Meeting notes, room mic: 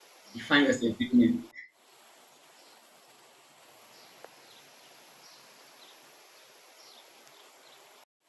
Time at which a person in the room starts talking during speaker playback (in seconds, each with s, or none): 0.3 s